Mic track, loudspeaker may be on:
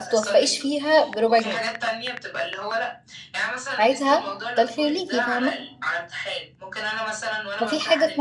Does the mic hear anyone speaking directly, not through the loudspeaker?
Yes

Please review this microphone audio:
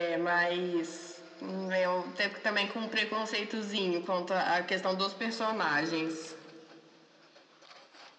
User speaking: No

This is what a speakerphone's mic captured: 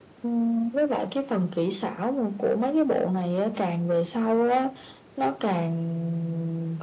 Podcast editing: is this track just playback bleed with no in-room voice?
Yes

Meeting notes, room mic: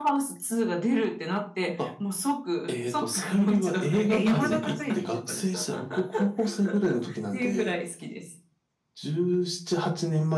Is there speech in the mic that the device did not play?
Yes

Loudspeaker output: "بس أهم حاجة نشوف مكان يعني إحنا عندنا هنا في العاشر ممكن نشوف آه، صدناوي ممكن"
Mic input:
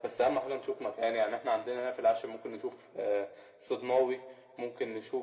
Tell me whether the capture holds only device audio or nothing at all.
Yes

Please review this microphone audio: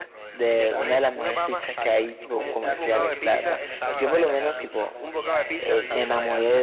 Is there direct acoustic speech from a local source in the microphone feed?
Yes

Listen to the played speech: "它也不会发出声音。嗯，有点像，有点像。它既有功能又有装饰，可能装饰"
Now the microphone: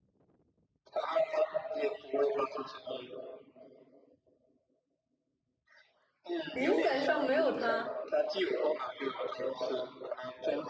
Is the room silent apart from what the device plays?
No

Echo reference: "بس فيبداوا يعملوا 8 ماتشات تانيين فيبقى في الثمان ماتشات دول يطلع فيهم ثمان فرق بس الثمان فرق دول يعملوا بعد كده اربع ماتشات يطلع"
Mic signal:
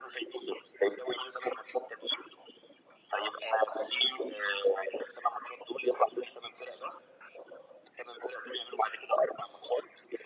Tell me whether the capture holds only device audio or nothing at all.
Yes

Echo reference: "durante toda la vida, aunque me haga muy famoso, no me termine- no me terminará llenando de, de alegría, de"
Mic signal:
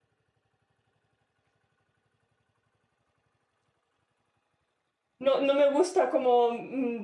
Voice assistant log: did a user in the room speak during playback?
Yes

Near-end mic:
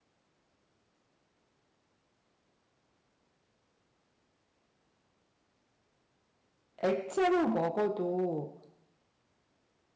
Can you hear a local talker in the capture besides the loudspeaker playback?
Yes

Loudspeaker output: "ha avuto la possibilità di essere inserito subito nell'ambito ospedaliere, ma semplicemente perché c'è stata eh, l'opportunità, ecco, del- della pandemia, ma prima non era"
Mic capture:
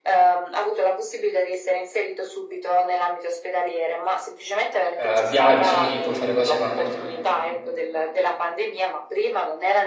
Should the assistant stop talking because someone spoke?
Yes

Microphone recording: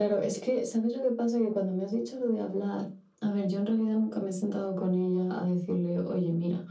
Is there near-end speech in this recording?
No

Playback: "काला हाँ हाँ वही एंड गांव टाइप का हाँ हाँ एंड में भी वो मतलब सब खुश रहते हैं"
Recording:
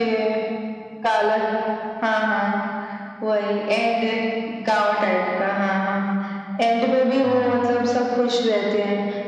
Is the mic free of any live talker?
No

